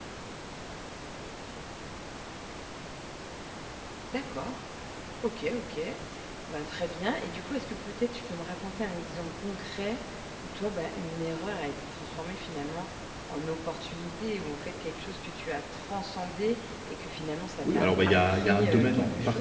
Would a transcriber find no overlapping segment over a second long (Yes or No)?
No